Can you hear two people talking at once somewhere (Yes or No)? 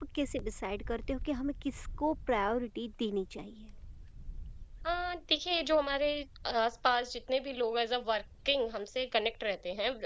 No